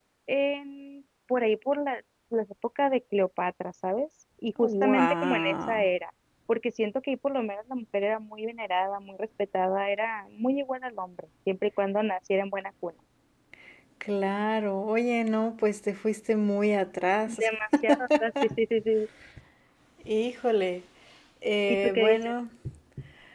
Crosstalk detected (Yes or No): Yes